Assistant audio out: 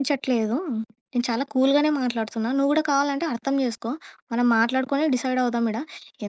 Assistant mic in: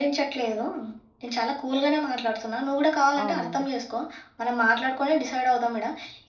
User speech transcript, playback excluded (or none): అవునండి.